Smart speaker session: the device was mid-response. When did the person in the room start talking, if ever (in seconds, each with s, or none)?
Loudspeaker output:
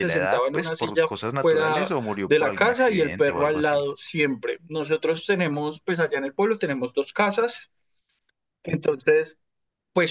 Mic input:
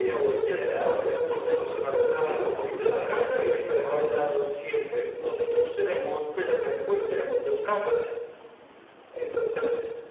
6.3 s